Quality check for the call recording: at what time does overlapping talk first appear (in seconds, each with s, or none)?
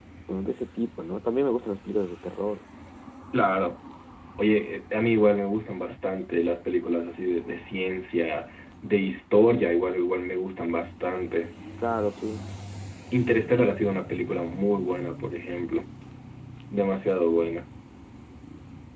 none